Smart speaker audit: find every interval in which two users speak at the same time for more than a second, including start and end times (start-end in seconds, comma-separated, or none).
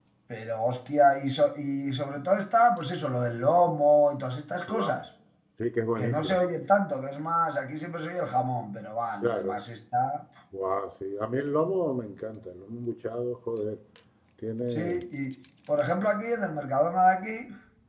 none